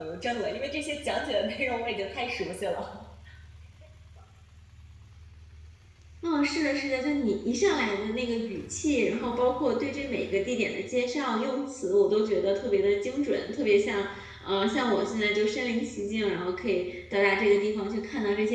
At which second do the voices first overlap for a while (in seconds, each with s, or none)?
none